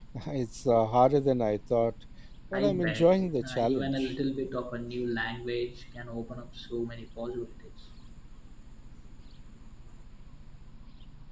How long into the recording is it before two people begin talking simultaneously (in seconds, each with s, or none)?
2.5 s